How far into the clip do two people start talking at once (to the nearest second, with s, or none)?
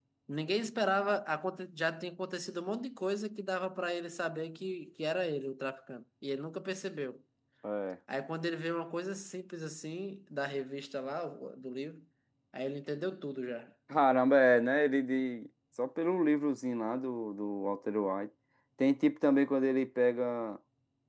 none